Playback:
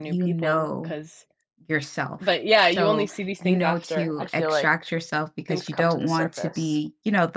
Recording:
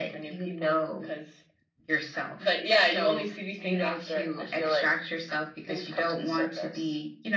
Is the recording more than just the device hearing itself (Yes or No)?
No